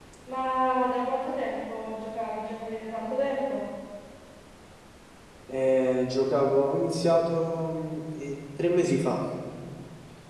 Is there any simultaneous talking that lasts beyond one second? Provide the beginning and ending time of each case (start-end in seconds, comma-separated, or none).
none